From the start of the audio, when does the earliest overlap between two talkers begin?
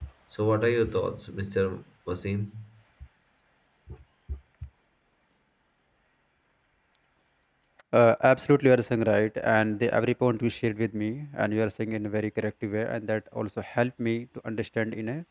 none

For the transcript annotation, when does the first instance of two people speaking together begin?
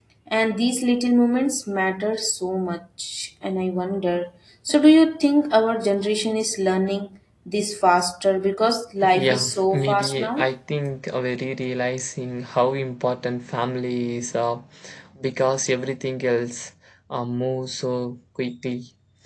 9 s

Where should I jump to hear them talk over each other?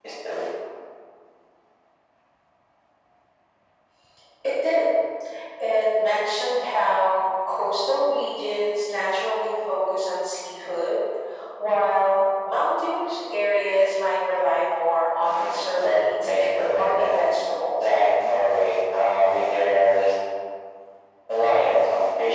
15 s

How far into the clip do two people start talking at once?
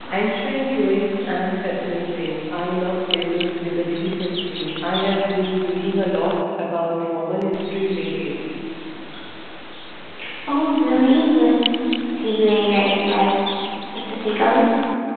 none

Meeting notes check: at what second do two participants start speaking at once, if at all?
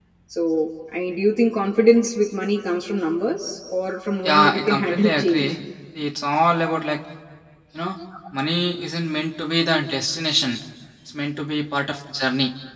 4 s

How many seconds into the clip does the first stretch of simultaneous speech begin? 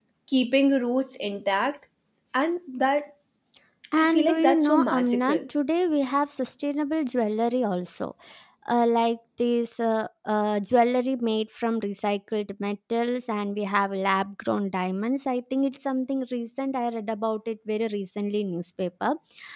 4 s

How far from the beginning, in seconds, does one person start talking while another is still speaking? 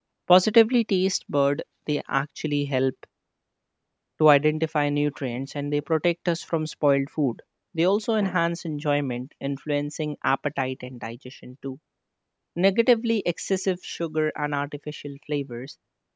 none

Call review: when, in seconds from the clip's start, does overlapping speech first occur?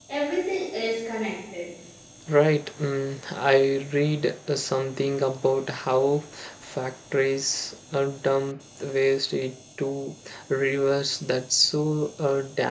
none

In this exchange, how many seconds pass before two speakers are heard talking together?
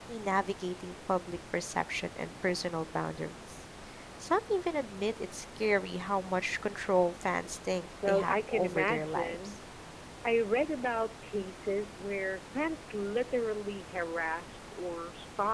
8 s

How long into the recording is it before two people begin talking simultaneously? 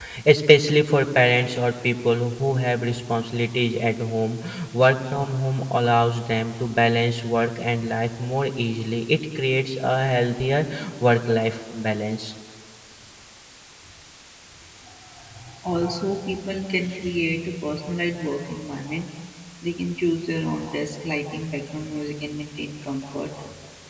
none

